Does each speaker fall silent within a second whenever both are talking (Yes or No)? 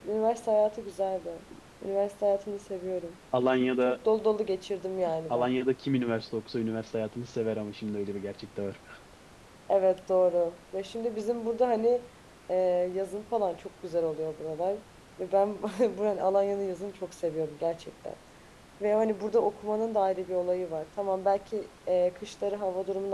Yes